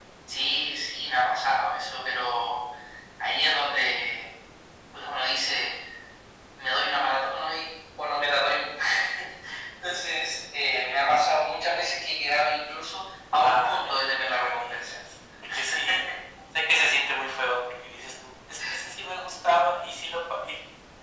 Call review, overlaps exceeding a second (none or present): present